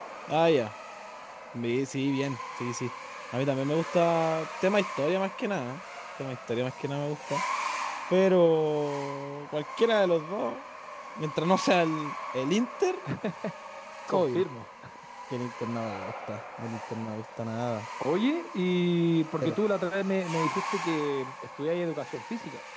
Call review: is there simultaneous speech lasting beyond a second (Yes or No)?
No